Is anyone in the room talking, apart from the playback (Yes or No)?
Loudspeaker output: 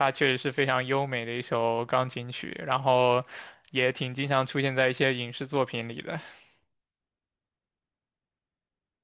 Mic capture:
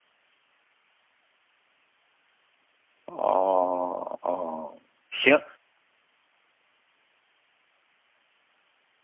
Yes